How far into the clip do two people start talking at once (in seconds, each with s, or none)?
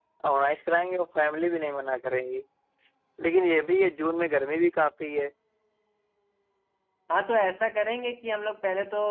none